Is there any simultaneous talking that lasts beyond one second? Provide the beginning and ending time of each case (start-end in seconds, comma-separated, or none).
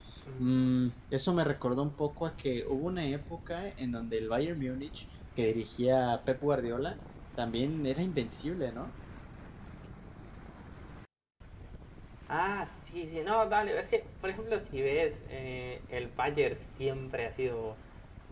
none